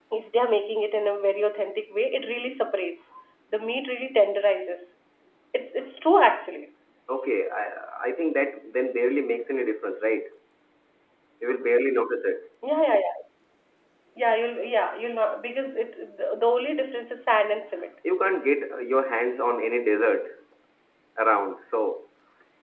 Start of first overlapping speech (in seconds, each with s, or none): none